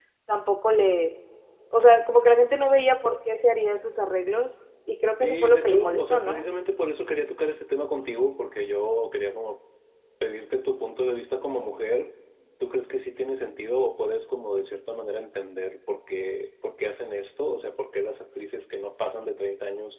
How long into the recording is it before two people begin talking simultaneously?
5.2 s

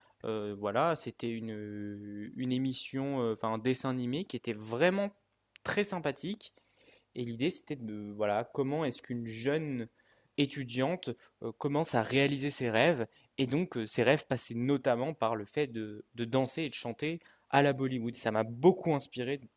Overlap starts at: none

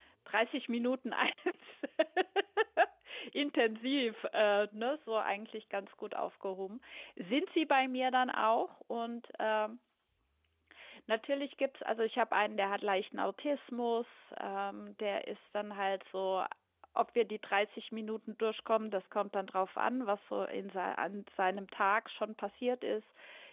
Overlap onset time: none

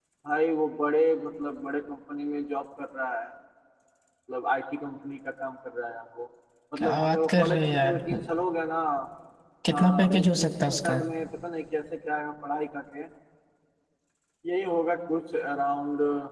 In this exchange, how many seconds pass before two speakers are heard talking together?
6.8 s

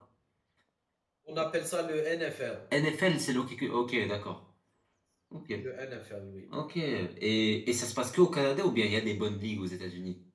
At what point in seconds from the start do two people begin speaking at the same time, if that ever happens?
none

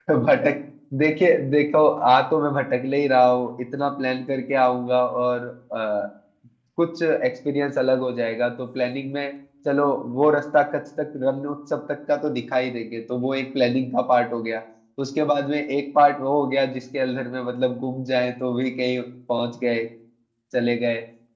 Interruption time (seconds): none

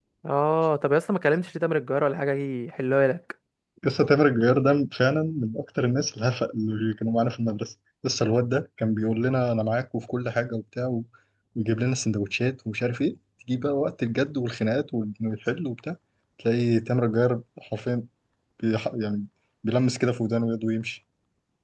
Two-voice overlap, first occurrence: none

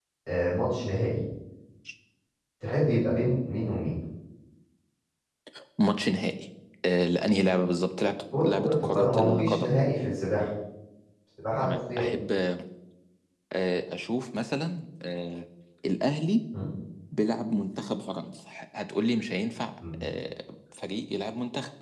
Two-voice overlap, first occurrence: 8.3 s

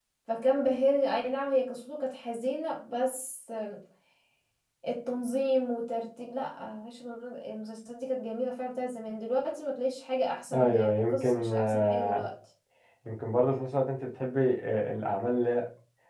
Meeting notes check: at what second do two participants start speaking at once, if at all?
10.5 s

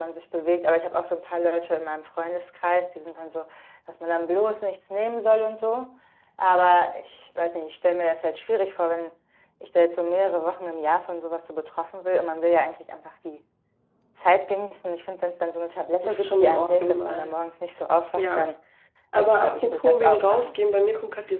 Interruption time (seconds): 16.0 s

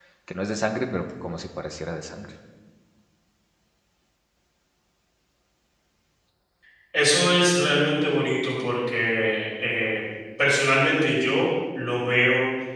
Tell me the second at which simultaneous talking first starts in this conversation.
none

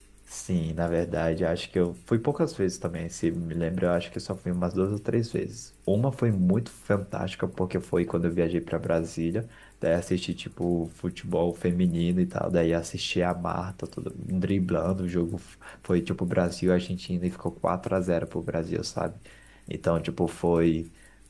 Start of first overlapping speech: none

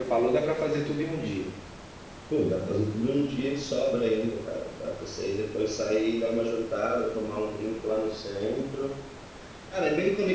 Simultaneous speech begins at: none

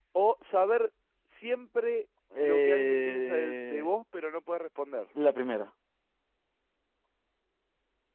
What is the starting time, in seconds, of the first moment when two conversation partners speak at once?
2.3 s

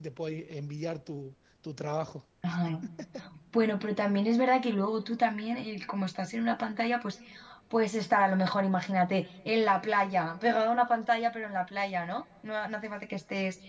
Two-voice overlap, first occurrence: none

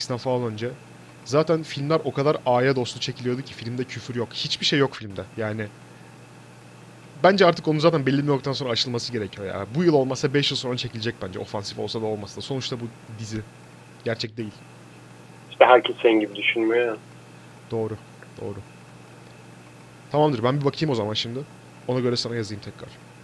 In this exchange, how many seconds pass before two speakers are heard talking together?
none

